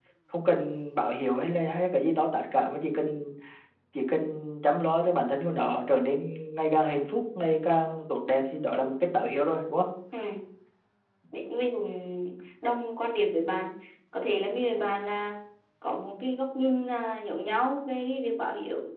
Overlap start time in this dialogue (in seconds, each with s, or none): none